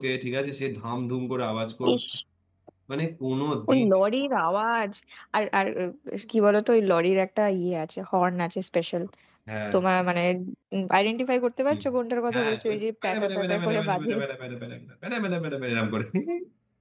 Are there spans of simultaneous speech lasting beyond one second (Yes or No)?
Yes